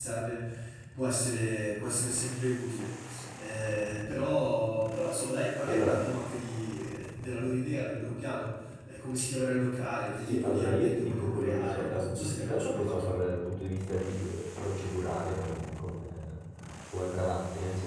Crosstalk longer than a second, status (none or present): present